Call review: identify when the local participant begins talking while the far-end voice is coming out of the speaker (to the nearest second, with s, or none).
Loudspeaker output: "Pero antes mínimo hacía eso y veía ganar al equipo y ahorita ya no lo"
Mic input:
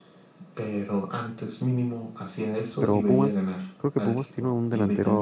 3 s